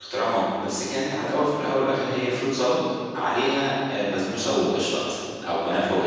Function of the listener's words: listening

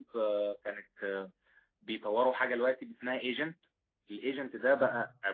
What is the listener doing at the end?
listening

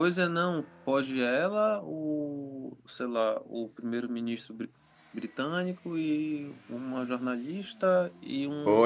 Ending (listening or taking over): taking over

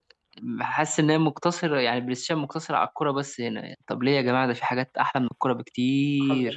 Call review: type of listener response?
taking over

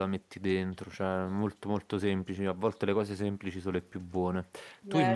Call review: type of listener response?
taking over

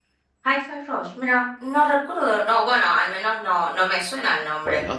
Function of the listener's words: taking over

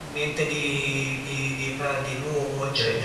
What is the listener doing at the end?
taking over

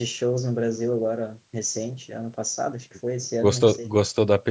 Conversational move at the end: taking over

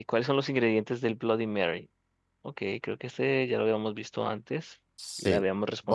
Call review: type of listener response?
taking over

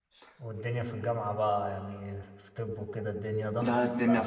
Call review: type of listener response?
taking over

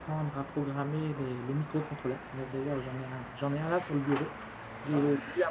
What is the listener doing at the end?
listening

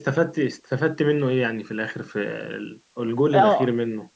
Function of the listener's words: taking over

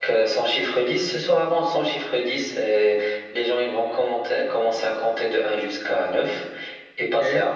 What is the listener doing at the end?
listening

